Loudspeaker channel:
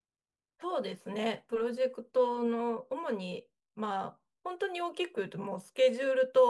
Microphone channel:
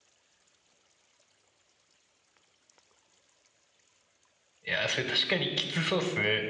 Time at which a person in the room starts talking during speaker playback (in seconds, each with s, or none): 4.6 s